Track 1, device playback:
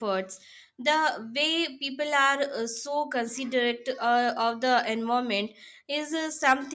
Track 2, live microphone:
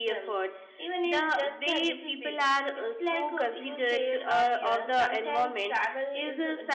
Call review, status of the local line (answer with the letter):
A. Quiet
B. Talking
B